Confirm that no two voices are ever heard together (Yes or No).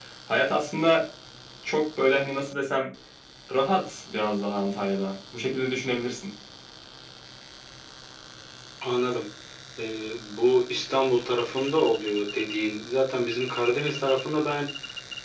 Yes